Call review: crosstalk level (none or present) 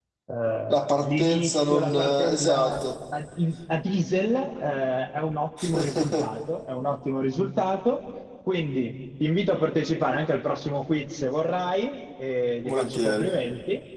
present